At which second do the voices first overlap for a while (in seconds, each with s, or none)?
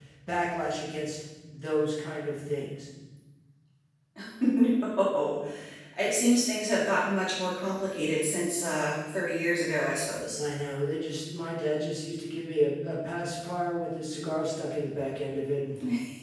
none